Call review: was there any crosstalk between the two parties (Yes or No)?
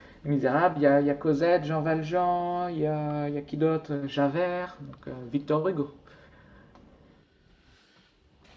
No